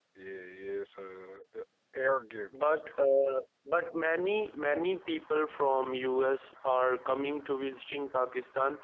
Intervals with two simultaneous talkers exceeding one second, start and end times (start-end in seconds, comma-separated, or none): none